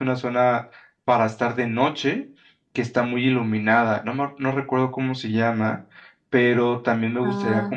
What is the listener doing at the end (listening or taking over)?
listening